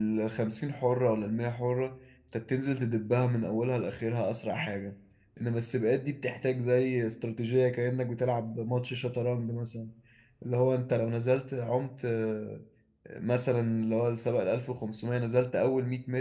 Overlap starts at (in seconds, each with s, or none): none